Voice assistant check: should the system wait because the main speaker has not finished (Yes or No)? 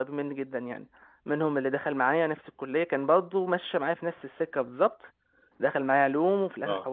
Yes